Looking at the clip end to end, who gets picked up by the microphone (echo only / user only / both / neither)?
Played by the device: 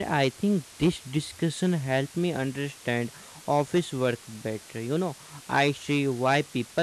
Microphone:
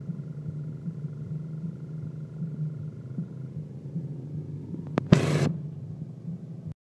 neither